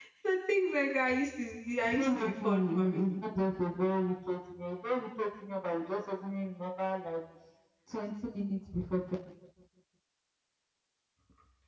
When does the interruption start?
1.8 s

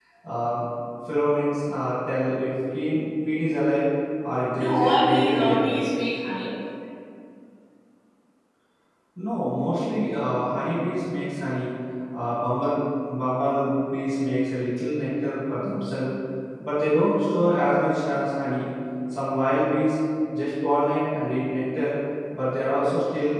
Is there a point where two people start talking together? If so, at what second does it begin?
4.5 s

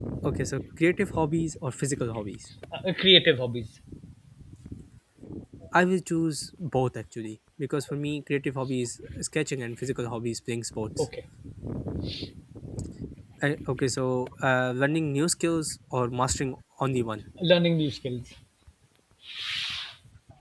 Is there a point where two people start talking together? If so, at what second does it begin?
none

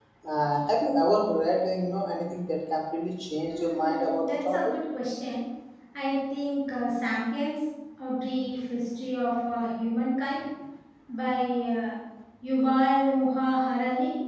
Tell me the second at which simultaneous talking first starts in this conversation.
3.5 s

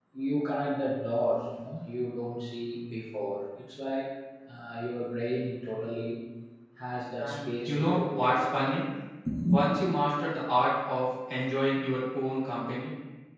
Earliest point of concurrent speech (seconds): 7.2 s

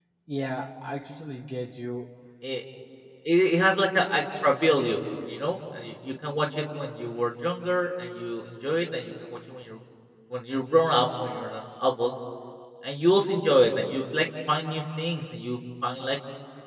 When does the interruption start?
none

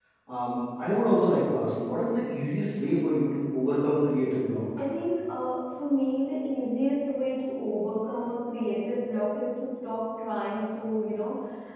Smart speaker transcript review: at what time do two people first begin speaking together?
none

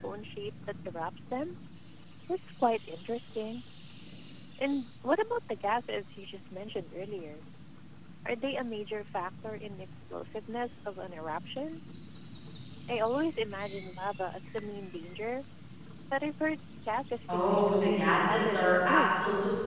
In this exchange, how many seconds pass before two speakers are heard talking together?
17.3 s

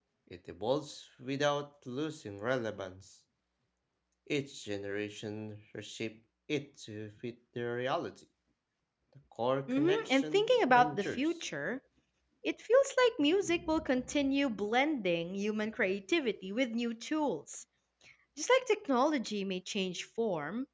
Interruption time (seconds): 9.7 s

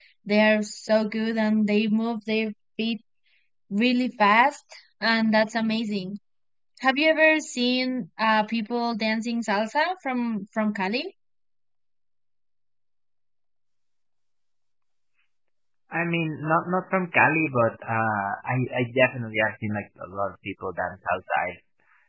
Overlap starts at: none

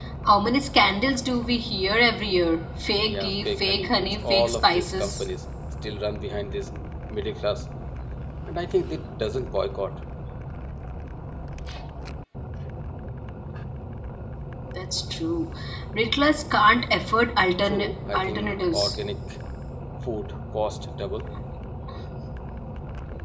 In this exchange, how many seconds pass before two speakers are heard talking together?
3.0 s

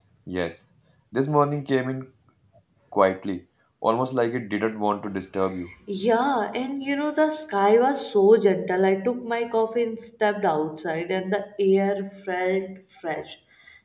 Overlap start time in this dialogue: none

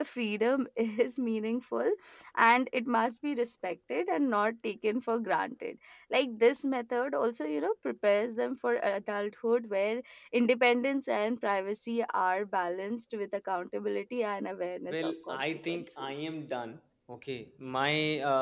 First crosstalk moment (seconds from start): 14.9 s

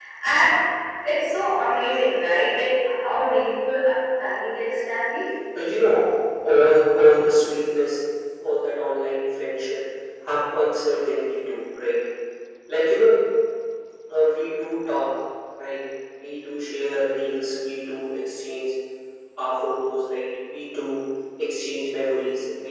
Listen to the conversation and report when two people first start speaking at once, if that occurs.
none

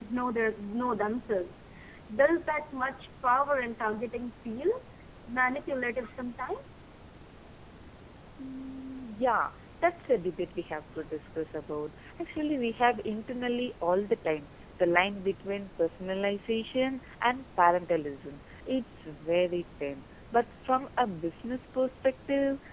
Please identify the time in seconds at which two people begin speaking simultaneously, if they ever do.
none

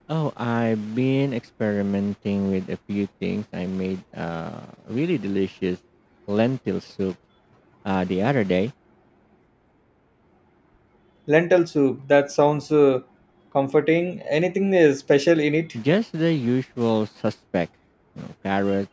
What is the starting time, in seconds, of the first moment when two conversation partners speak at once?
none

